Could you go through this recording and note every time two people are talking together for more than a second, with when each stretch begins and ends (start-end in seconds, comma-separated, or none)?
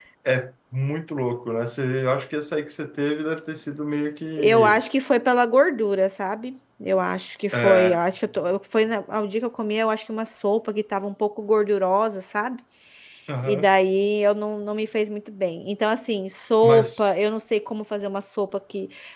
none